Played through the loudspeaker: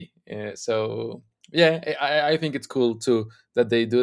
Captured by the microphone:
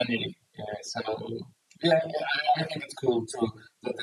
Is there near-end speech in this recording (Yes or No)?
No